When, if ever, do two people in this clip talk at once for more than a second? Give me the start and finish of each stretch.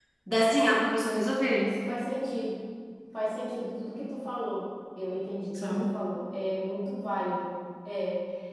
none

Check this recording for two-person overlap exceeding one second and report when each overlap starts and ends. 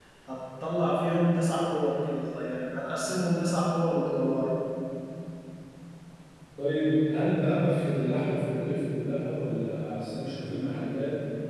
none

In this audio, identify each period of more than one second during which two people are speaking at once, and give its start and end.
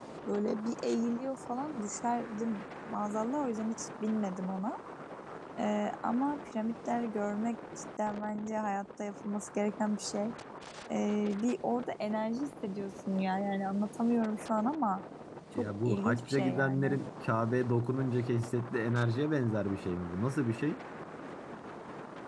15.6-17.0

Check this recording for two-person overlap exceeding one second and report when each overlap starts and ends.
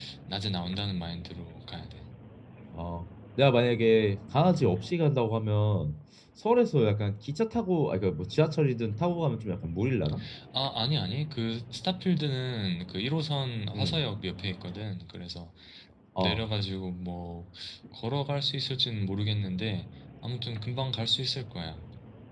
none

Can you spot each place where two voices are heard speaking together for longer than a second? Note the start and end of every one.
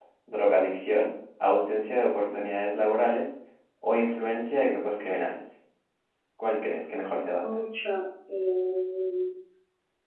none

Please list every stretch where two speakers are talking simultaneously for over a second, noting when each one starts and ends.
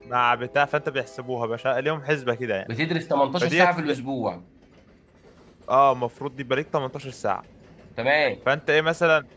none

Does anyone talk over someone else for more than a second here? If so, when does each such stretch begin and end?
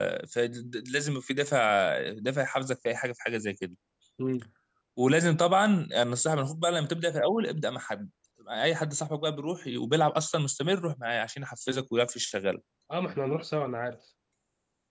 none

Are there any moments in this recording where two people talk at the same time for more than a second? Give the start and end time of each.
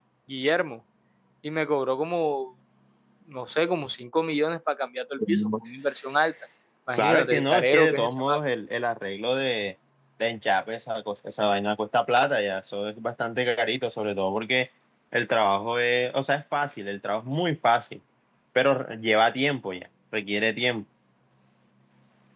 7.0-8.2

